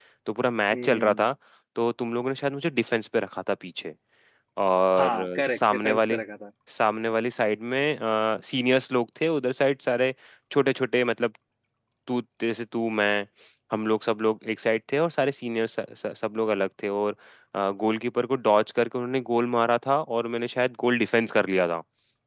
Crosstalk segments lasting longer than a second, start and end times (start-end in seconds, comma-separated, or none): 5.0-6.2